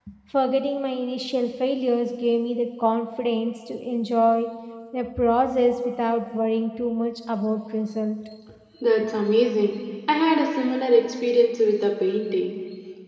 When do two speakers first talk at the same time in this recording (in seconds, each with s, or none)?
none